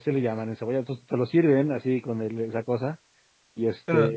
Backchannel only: Yes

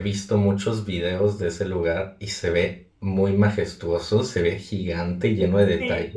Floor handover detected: Yes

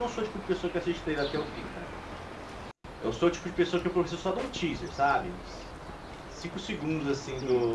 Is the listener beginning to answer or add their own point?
No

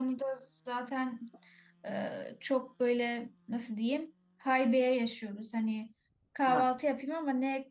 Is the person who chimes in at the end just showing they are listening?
Yes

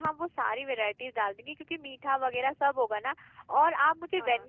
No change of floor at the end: Yes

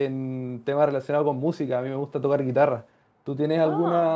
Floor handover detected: No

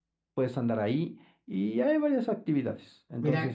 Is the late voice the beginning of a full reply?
No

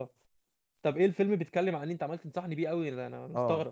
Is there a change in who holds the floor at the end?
Yes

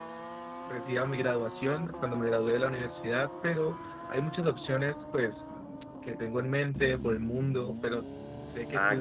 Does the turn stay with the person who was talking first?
No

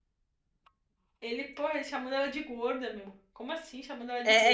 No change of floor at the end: No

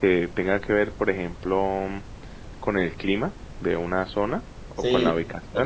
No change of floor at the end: No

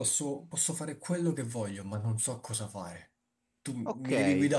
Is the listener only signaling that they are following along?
No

